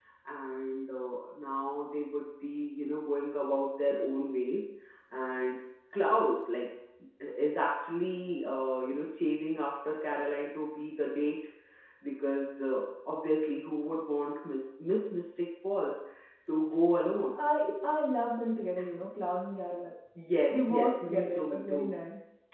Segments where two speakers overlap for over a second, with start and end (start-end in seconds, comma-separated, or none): 20.5-21.8